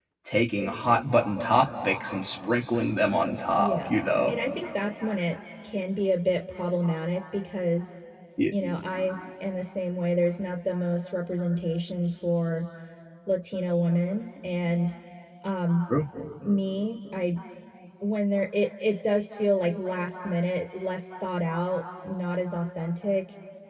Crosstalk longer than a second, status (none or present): none